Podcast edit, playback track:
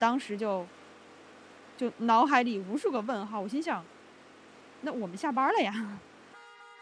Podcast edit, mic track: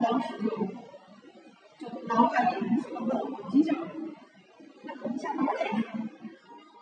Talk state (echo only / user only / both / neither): echo only